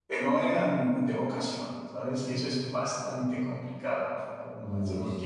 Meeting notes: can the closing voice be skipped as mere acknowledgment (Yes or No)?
Yes